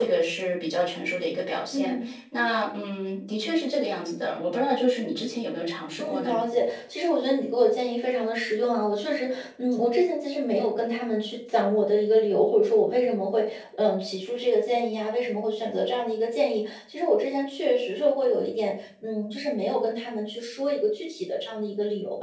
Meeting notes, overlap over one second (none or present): none